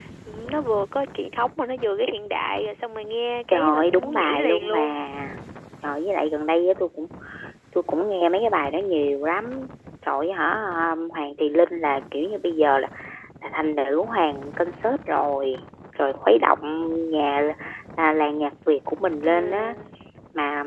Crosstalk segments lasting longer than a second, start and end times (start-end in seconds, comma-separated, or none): 3.5-5.0